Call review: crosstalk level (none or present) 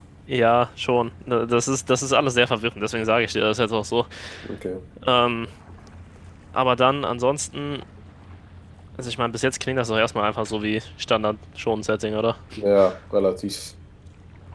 none